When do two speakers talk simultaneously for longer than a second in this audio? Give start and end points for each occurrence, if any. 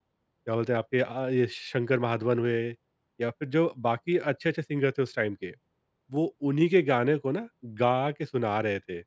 none

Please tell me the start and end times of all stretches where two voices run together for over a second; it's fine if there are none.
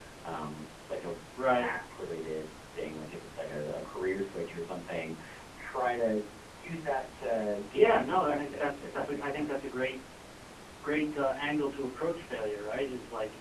7.7-9.6

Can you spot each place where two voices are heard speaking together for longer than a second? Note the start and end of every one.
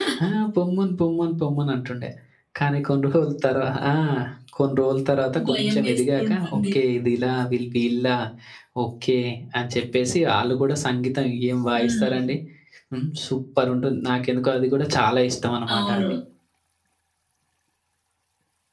5.5-6.7

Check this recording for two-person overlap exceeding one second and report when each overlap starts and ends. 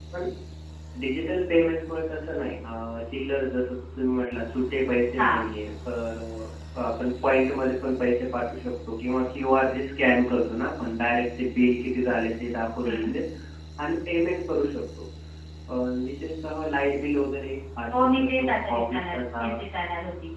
17.9-19.5

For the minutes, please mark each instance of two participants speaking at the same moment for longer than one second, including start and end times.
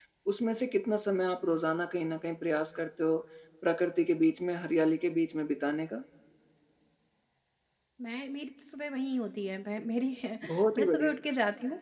none

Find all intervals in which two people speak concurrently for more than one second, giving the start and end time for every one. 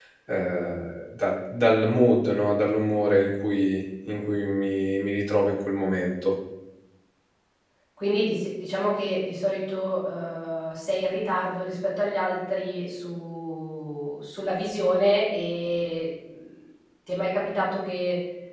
none

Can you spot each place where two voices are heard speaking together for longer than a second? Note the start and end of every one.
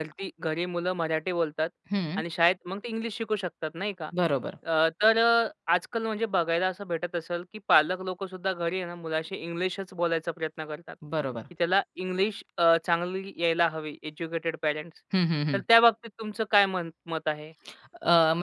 none

